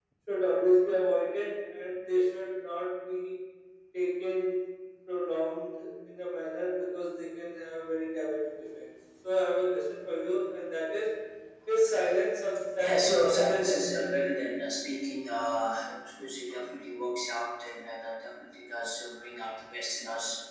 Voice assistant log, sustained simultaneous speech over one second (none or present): present